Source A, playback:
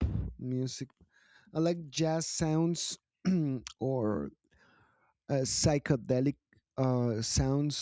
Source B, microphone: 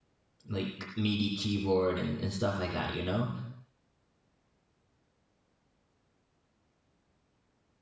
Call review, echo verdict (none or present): none